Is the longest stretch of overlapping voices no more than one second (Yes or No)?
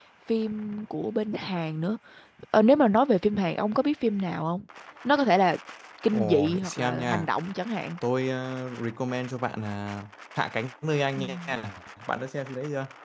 No